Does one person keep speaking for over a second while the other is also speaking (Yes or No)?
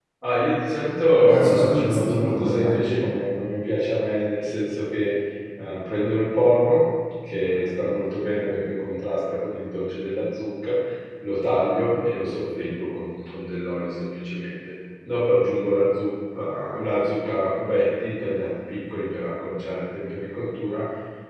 Yes